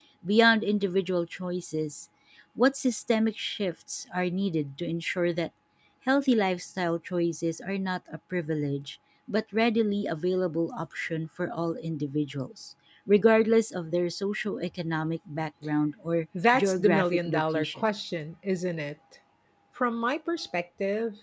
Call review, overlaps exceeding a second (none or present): present